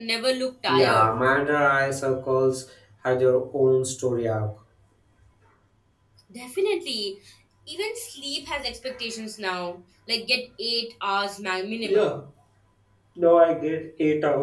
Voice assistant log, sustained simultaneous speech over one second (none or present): none